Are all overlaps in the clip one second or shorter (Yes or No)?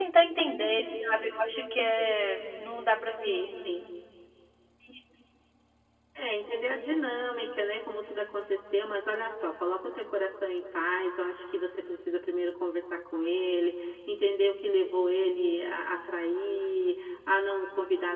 Yes